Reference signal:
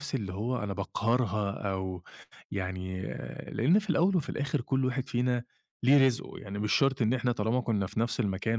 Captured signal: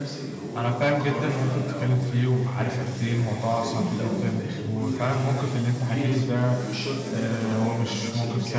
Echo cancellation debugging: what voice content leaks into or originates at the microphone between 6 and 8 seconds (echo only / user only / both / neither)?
both